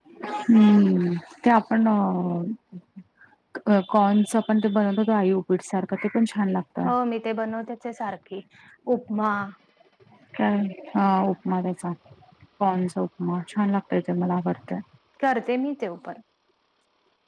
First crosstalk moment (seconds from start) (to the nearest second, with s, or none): none